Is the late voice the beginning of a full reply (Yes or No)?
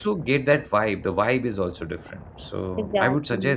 No